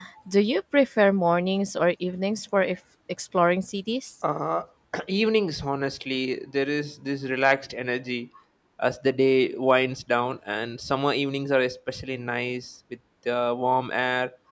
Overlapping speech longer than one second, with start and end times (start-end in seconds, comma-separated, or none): none